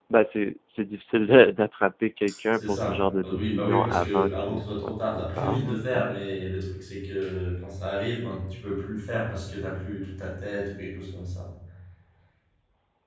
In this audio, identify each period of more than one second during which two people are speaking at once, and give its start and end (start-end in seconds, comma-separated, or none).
2.5-6.2